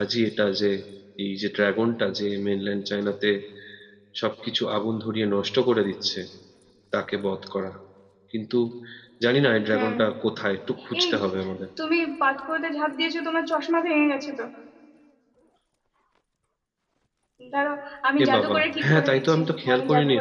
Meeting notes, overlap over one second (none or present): present